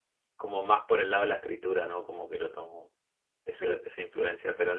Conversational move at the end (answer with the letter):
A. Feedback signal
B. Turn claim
A